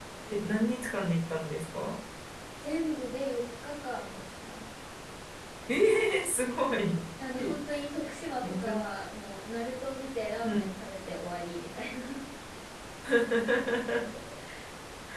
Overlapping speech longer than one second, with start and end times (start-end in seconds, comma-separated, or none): none